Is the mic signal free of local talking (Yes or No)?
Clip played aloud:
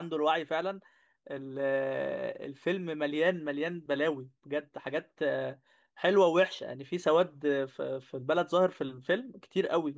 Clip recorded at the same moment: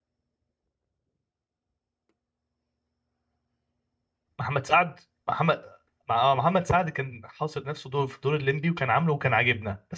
No